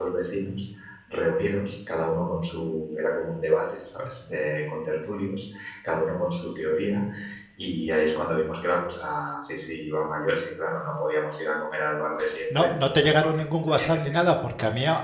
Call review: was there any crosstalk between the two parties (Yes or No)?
Yes